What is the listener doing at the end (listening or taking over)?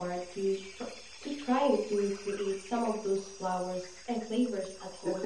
taking over